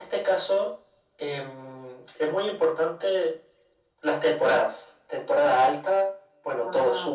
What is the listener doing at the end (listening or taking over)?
listening